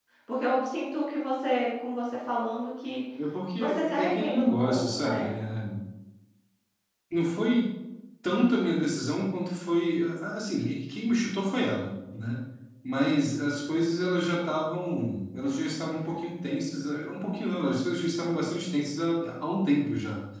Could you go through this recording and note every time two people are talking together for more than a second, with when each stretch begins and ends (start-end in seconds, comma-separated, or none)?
3.6-5.3